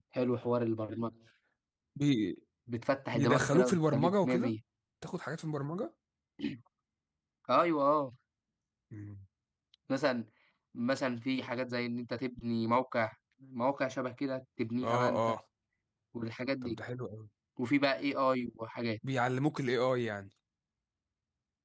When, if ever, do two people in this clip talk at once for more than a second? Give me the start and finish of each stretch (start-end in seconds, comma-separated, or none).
3.1-4.5